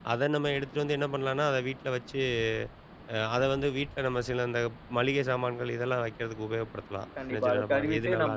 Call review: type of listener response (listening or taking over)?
taking over